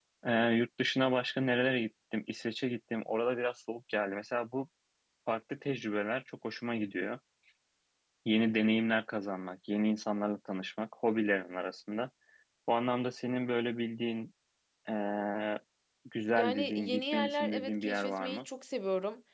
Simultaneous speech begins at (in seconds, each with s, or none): 16.4 s